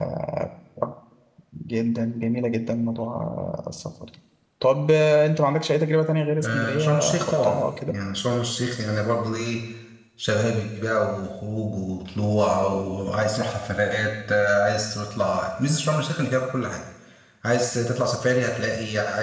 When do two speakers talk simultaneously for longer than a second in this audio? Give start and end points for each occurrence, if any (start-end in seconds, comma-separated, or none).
6.4-7.9